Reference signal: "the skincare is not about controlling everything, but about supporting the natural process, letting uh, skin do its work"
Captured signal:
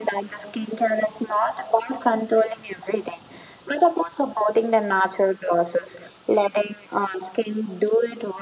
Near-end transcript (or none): none